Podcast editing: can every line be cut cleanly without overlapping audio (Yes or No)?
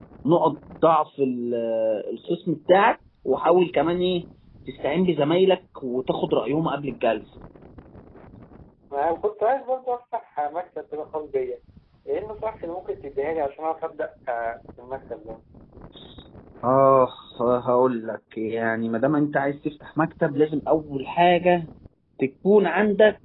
Yes